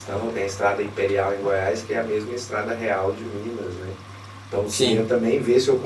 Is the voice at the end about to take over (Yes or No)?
No